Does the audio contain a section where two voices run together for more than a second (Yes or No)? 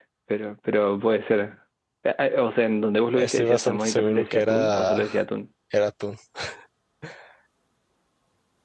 Yes